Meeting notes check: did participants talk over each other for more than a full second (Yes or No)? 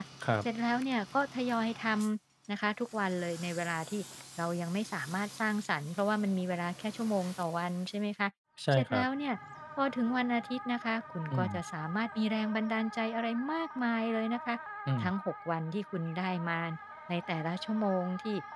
No